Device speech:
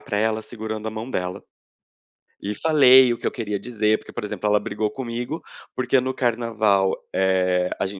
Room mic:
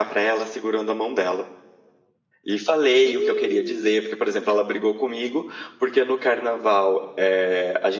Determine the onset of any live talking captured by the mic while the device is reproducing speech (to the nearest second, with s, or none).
3 s